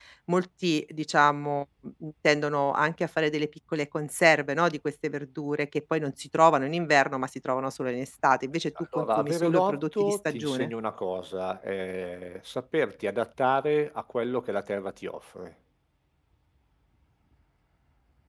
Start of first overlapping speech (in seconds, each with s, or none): 8.8 s